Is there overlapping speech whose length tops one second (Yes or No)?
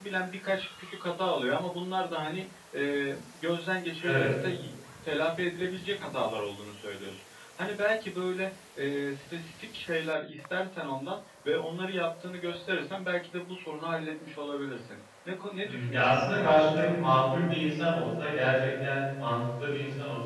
Yes